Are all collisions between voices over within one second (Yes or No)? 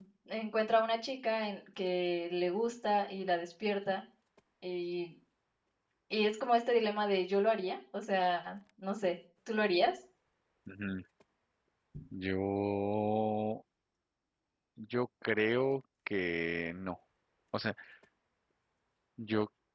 Yes